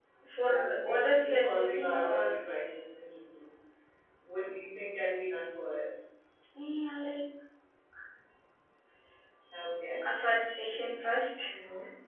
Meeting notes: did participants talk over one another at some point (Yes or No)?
Yes